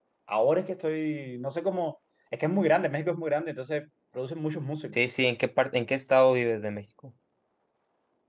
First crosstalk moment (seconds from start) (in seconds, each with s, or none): none